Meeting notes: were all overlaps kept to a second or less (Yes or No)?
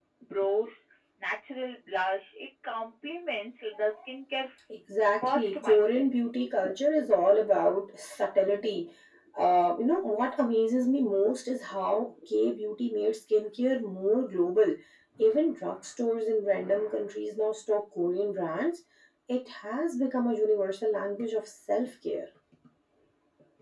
No